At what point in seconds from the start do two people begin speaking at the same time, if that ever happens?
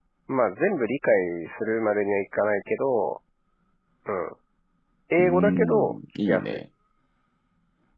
5.2 s

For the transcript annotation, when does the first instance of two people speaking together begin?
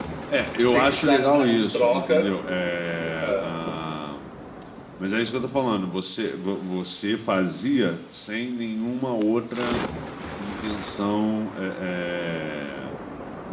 0.7 s

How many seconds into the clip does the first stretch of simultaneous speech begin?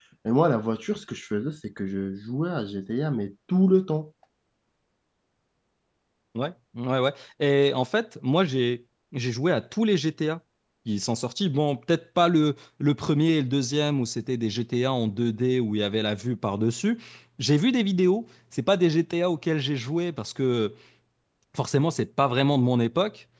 none

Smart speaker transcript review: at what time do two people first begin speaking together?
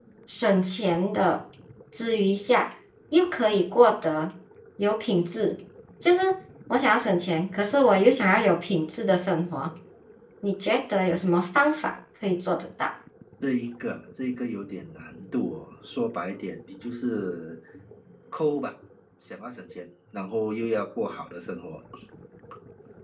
none

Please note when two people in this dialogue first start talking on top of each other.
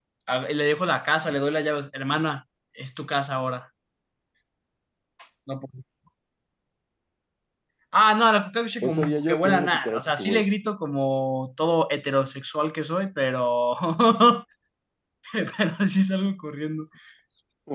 8.8 s

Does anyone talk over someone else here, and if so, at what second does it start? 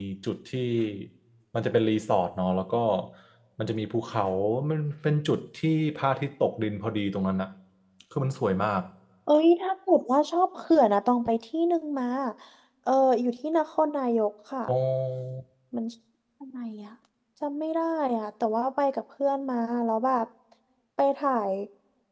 none

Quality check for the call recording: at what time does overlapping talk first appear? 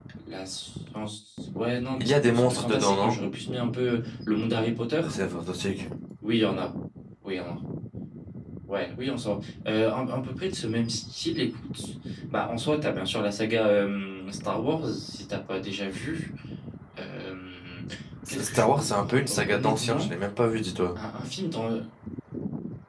2.0 s

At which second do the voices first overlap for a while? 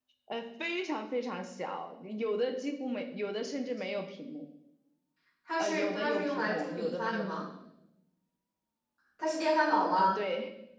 5.6 s

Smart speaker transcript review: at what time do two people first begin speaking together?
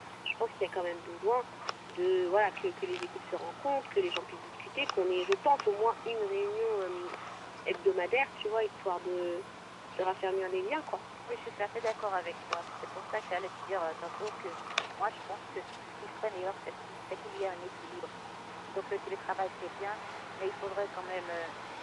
none

